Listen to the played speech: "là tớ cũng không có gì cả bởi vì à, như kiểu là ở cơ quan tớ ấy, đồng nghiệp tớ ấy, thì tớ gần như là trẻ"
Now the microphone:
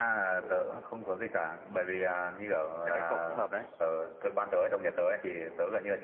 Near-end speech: present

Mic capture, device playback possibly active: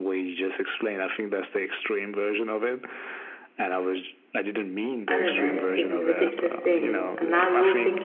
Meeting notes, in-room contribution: present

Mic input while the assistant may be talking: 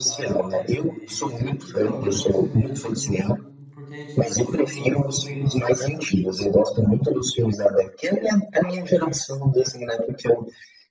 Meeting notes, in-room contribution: present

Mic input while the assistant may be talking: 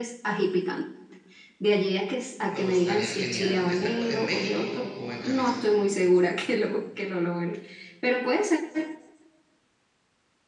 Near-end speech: present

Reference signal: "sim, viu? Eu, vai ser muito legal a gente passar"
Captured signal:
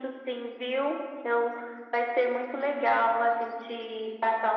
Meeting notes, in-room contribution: none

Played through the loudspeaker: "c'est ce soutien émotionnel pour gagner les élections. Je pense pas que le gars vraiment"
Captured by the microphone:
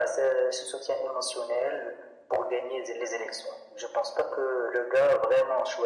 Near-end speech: none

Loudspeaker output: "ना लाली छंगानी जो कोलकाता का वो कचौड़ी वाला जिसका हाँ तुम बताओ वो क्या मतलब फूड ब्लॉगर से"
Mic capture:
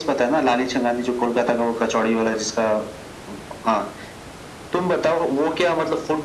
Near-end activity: none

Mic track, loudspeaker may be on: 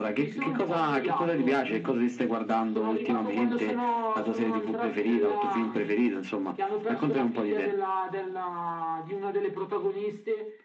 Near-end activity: none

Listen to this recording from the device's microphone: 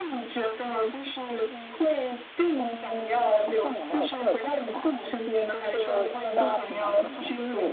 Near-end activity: none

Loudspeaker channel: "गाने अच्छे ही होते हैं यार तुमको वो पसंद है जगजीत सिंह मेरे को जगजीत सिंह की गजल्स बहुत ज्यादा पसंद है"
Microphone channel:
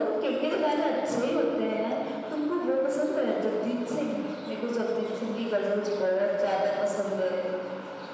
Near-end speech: none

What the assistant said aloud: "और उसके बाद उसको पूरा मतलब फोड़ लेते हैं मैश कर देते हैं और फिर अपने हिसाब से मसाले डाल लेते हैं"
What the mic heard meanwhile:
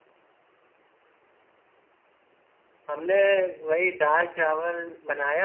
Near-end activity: present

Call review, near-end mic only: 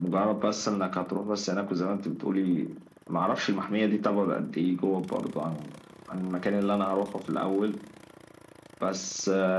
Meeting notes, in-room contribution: none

